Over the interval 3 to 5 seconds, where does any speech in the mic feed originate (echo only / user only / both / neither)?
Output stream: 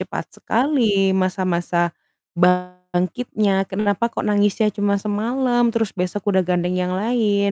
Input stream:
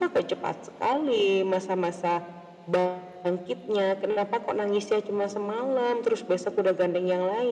echo only